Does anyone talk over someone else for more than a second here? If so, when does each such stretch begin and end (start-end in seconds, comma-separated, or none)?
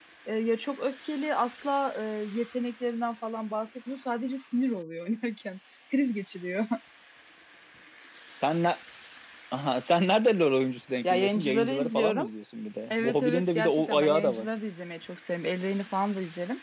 11.0-12.3, 12.9-14.4